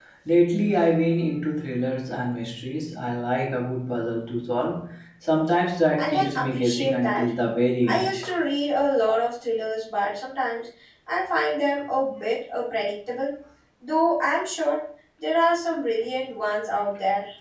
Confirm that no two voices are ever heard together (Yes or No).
No